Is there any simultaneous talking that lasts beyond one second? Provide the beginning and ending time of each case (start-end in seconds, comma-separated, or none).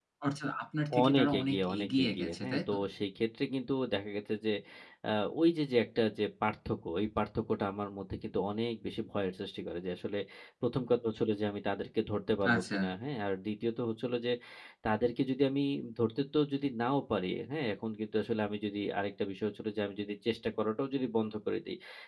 1.0-2.8